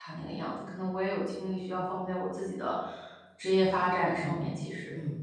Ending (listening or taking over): taking over